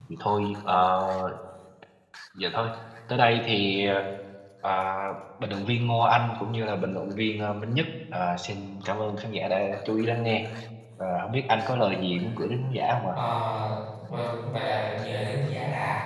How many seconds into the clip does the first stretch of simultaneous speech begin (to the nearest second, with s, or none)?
none